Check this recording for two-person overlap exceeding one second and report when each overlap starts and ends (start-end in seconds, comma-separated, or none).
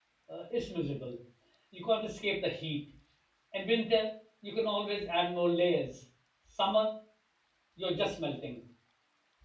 none